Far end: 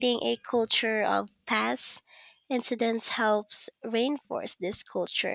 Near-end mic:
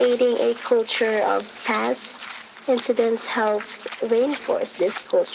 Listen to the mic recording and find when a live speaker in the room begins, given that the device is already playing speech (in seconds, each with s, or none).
none